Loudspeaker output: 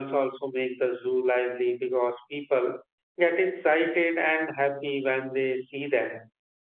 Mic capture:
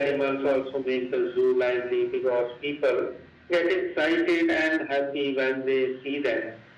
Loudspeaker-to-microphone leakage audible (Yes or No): Yes